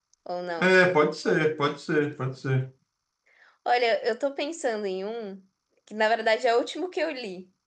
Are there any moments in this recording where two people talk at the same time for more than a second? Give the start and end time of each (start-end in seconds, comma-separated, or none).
none